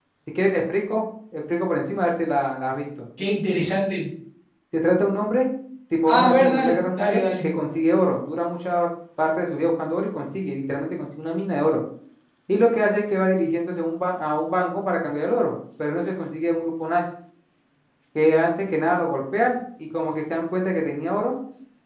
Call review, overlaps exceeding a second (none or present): present